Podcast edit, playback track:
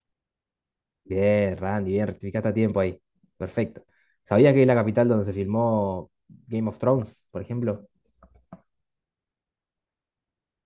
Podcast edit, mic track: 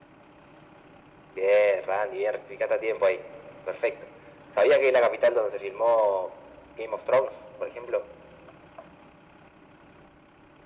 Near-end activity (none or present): none